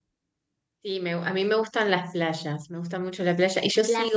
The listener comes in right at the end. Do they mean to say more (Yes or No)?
No